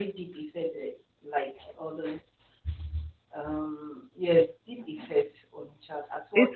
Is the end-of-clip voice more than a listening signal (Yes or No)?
Yes